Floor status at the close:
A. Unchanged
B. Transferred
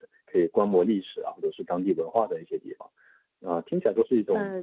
A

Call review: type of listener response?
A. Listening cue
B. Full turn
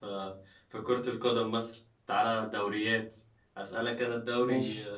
A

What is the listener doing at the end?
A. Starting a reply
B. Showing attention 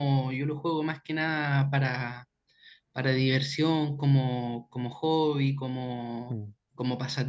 B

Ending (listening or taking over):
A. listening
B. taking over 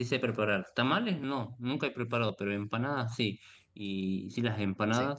A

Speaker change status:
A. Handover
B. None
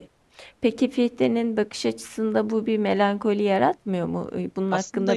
A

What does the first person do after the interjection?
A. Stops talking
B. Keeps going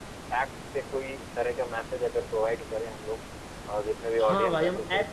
A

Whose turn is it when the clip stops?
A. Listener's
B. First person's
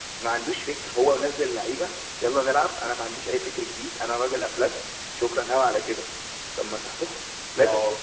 B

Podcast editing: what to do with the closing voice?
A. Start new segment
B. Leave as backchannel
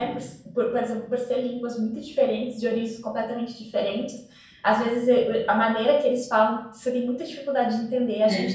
B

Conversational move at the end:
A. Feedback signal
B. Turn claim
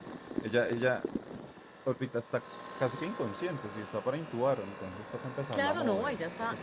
B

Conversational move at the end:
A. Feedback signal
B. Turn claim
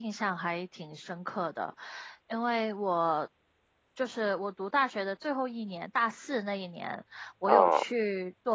A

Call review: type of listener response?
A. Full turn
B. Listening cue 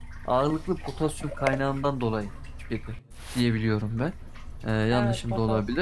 A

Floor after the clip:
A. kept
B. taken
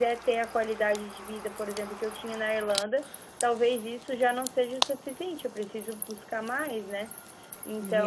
B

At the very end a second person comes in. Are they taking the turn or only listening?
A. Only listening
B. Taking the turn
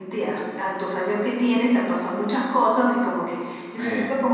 A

